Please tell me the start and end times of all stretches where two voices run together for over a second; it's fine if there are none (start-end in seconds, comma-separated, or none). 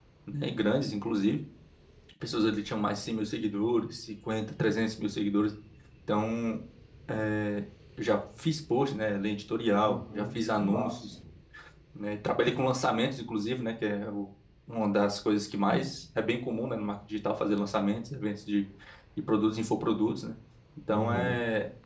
9.8-11.1